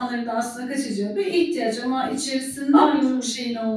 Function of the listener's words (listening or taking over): listening